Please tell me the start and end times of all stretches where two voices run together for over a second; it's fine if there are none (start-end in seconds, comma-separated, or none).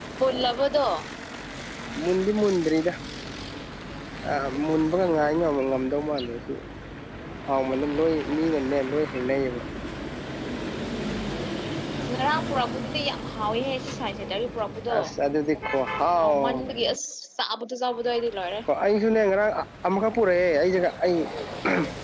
none